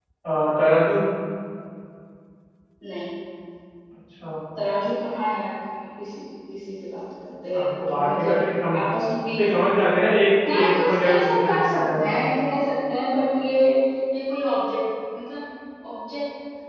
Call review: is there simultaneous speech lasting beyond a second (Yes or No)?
Yes